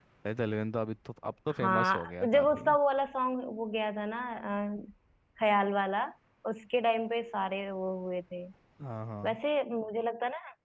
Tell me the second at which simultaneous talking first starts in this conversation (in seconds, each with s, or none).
1.5 s